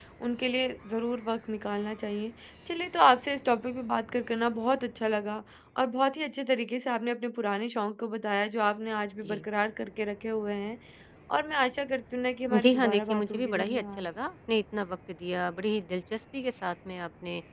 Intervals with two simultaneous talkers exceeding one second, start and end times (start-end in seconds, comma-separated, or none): 12.6-14.1